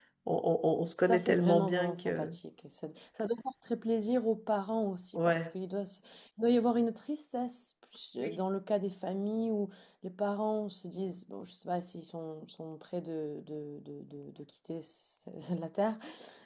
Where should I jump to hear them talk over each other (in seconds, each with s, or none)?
1.0 s